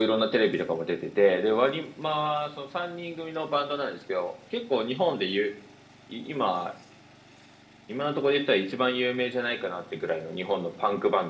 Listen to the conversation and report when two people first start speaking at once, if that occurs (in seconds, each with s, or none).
none